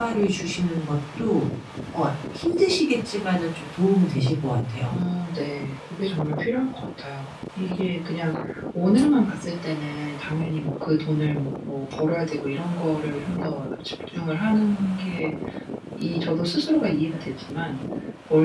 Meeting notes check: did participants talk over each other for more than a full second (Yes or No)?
No